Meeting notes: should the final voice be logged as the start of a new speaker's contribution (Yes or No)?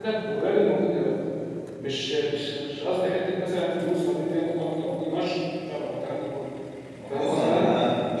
Yes